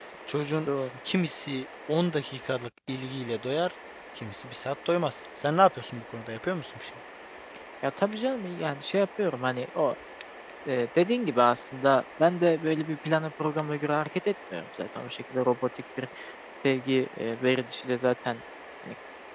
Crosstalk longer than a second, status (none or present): none